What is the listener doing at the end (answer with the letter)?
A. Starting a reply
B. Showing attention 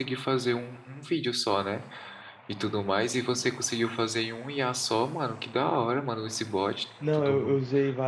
A